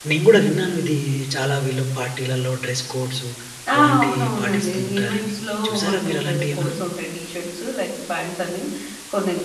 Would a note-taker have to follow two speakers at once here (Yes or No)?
Yes